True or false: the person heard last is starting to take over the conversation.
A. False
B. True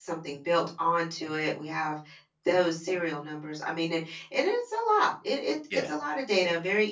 A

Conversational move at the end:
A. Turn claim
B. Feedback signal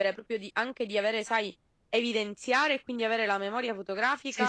A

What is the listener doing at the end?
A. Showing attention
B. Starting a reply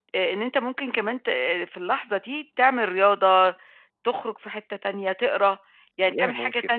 A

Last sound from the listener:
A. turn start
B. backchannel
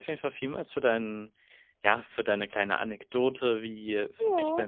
B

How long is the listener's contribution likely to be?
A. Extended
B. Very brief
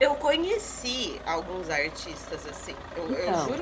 B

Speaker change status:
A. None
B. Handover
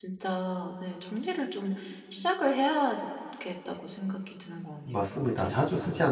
B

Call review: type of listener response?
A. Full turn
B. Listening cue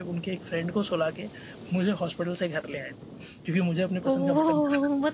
A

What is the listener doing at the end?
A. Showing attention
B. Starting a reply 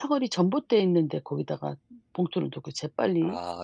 A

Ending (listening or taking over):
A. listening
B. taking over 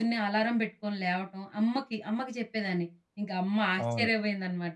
A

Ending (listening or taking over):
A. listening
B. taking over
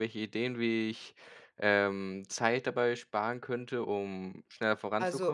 B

